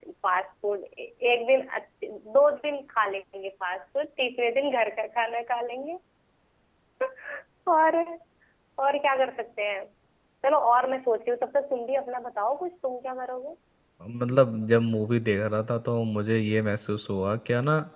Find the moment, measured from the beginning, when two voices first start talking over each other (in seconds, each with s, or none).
none